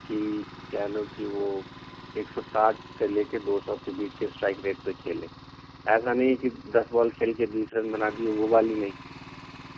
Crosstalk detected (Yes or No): No